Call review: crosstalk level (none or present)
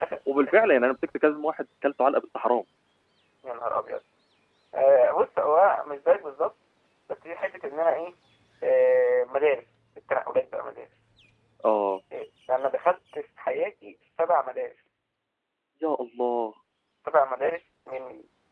none